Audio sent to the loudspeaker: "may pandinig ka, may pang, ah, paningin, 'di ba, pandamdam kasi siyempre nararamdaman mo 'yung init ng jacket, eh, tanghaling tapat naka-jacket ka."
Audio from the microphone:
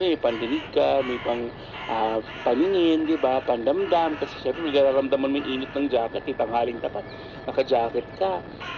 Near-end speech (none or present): none